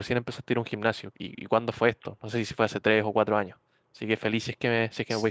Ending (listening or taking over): taking over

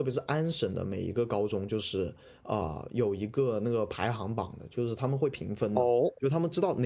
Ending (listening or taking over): listening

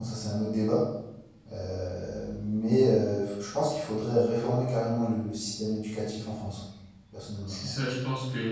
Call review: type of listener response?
taking over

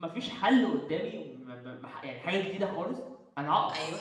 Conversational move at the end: listening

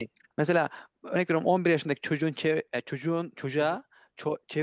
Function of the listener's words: listening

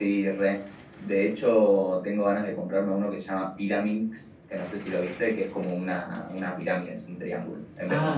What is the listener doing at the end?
taking over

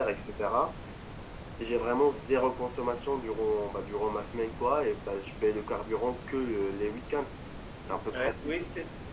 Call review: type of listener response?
taking over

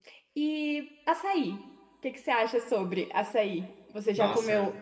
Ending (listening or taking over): taking over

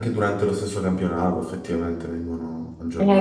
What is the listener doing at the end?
taking over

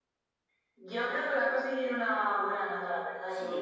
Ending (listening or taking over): taking over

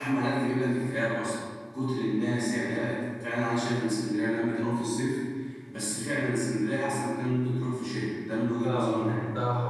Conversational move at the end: taking over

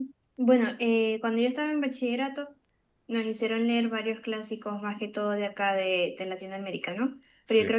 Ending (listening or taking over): listening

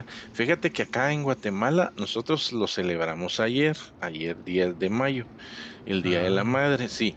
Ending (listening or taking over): listening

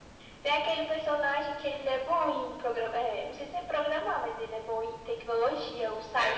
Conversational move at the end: taking over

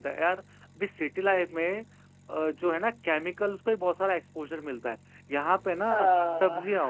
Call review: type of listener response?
listening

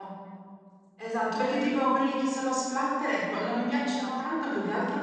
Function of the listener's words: listening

